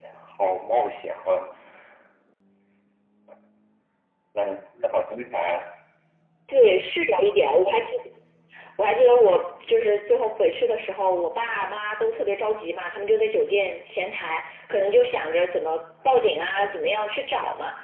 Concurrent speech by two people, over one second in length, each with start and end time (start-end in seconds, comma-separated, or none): none